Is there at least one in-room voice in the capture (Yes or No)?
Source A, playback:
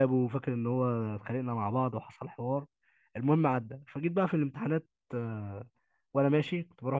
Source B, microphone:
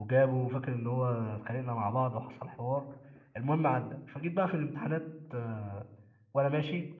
No